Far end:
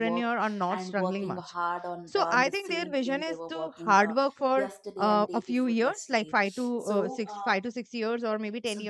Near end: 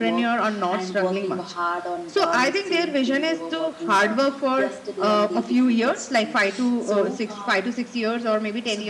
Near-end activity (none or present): none